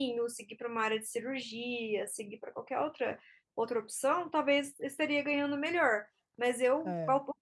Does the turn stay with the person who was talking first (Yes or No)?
Yes